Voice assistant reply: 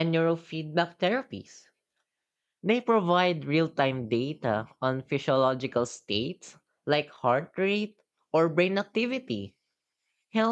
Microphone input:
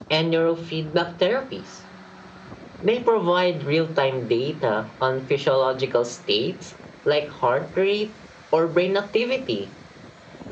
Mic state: echo only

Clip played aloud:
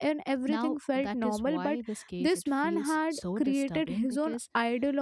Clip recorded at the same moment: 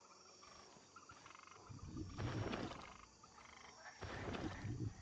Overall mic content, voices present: neither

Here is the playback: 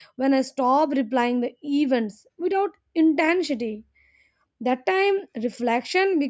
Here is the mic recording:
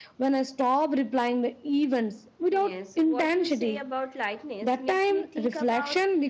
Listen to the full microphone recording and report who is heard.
both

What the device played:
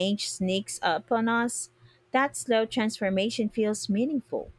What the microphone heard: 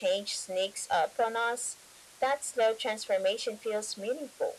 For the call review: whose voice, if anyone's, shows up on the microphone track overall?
echo only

